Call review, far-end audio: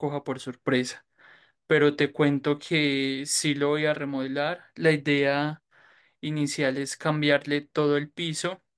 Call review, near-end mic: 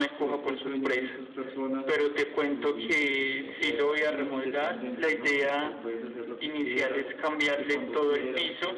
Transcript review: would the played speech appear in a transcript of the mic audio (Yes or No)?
Yes